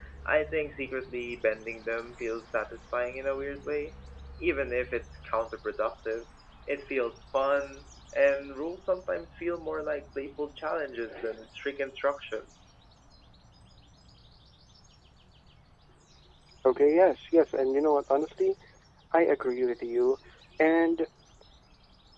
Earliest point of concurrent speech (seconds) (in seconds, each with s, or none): none